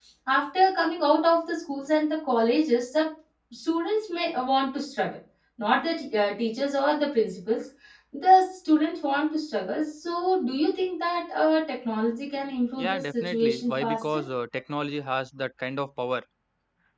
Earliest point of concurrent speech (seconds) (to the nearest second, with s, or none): 13 s